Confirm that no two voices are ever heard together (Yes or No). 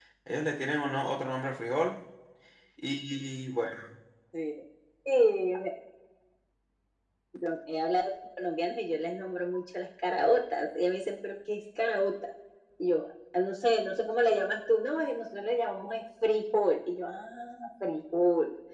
Yes